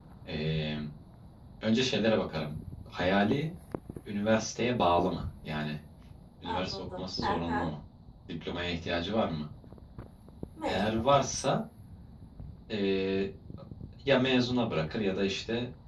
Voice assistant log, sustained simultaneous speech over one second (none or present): present